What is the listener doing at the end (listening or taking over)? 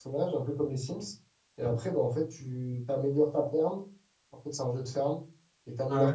listening